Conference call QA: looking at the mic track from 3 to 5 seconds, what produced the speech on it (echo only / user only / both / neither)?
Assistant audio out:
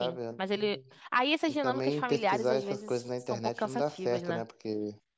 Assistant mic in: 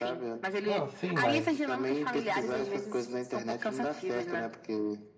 echo only